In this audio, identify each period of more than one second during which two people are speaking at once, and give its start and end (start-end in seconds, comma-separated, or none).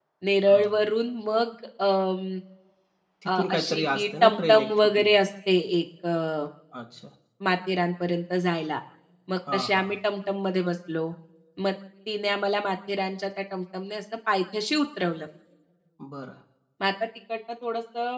3.3-5.1